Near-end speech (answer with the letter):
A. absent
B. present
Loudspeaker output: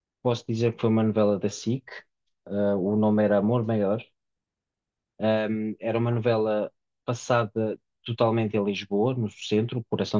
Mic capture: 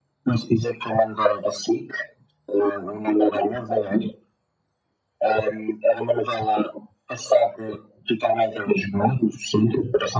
A